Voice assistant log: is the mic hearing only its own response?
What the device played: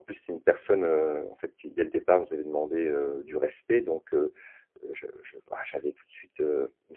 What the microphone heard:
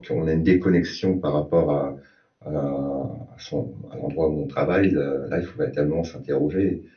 No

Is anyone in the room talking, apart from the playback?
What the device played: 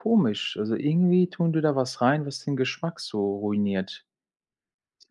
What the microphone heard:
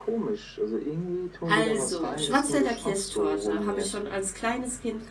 Yes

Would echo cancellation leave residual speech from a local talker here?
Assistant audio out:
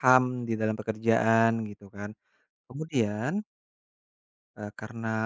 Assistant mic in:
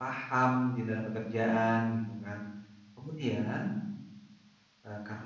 No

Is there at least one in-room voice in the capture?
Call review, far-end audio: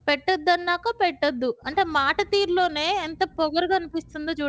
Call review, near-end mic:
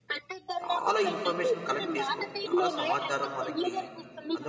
Yes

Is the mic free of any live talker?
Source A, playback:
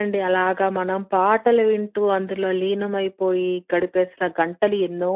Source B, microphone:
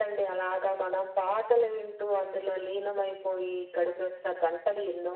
Yes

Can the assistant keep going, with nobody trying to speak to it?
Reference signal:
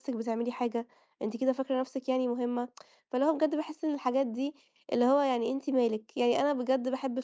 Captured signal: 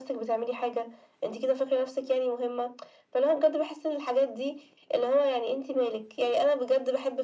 Yes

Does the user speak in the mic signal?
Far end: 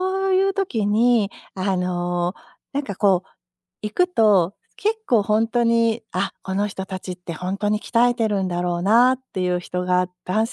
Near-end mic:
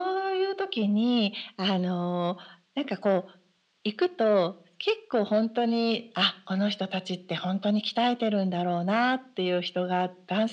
No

